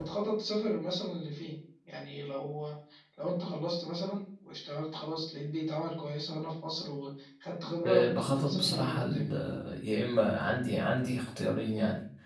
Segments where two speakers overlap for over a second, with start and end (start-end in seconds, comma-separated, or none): 7.8-9.2